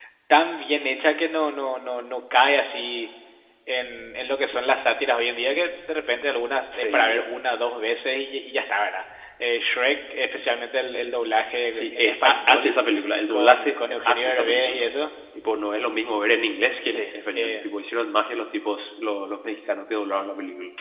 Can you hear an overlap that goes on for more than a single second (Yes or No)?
Yes